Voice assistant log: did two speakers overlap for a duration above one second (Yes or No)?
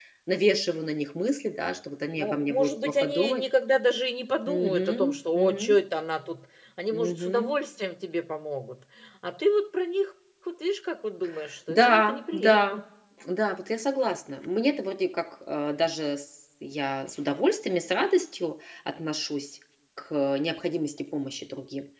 Yes